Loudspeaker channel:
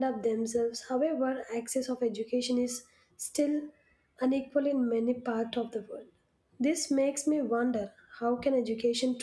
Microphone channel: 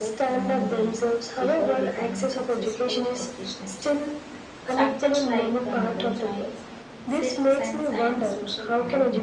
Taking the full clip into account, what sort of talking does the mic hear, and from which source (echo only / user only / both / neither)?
both